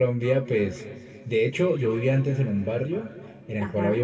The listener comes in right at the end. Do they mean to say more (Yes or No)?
No